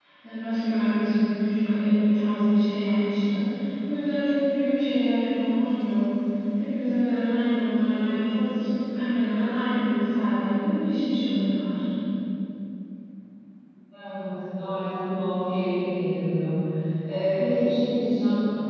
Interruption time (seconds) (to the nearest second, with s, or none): none